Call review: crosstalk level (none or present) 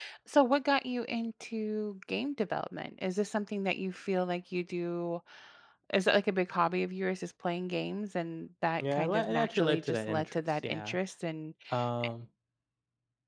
present